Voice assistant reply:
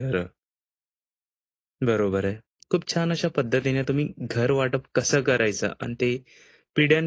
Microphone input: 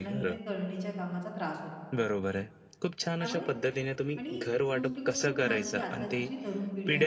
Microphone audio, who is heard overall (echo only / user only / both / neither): both